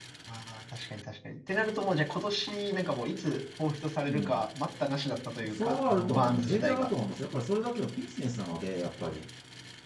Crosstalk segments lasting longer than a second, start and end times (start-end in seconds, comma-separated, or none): 5.5-6.9